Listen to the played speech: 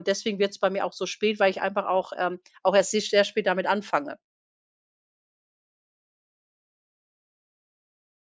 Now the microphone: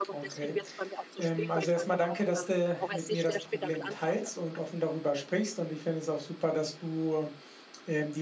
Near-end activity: present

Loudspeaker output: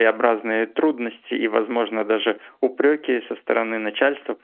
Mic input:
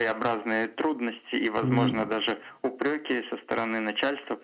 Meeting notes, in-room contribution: present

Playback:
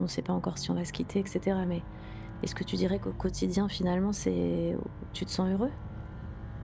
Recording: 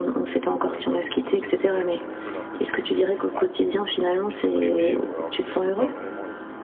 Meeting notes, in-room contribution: present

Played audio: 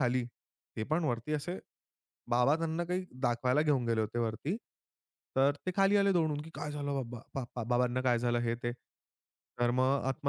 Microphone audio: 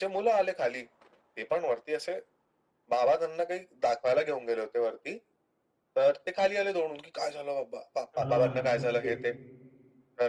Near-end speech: present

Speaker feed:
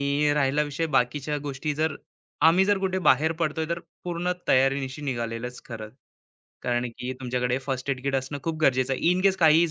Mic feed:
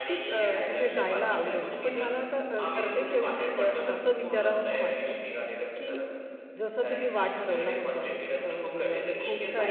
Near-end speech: present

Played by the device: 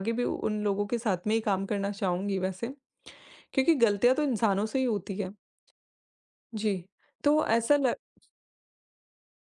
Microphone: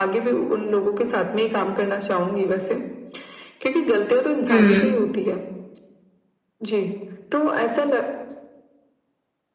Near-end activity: present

